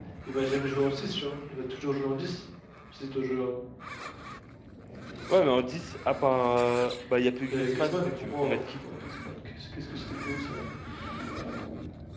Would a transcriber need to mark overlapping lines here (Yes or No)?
Yes